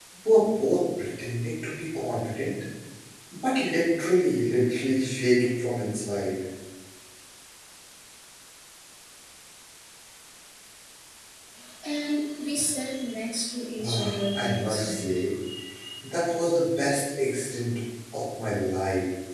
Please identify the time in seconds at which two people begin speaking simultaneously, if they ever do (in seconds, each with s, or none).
13.8 s